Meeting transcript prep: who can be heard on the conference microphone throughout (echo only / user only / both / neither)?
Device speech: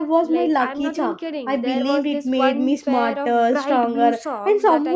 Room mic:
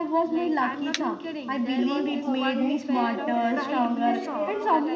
both